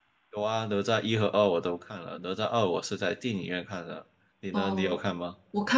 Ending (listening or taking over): taking over